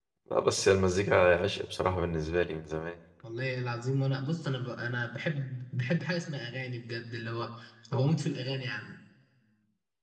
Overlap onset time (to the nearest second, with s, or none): none